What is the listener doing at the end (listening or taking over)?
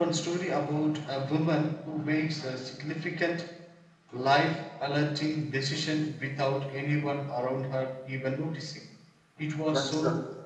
listening